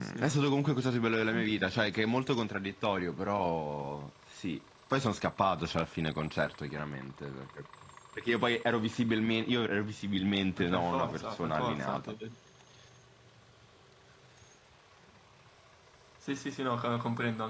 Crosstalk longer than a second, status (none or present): present